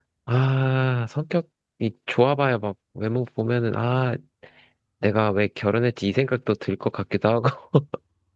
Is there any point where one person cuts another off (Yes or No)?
No